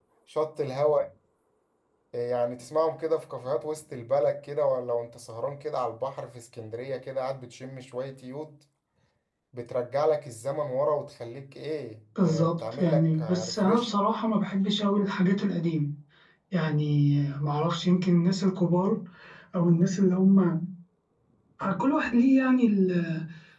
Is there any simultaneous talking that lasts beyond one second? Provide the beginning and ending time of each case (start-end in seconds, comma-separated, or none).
12.2-13.9